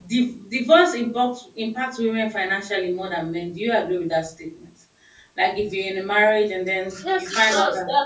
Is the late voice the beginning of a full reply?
Yes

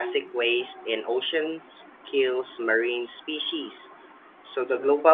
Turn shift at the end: No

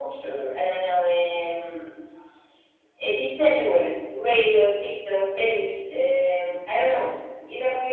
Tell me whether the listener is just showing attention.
Yes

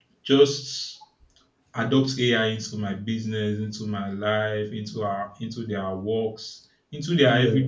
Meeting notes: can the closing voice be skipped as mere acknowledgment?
Yes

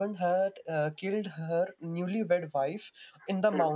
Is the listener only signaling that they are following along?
Yes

